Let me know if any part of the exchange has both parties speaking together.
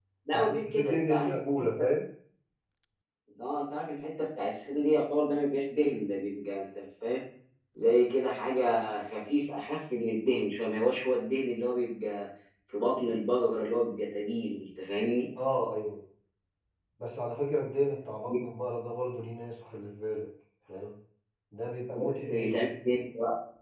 Yes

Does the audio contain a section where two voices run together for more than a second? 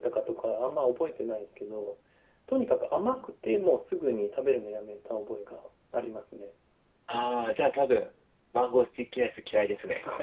No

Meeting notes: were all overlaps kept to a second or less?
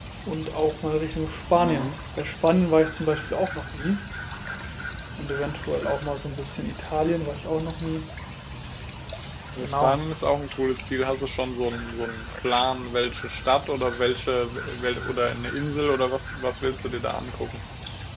Yes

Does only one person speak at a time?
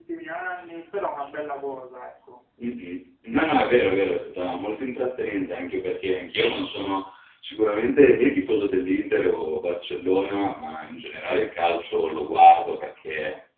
Yes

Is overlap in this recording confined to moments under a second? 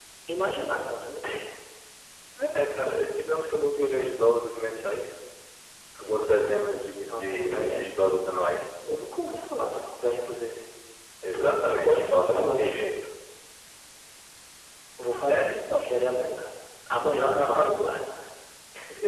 No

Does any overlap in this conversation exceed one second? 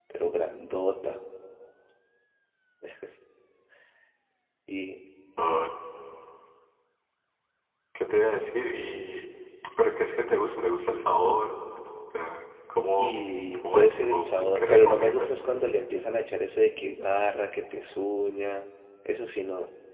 Yes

